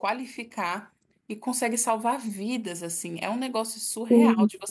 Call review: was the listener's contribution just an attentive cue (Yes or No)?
Yes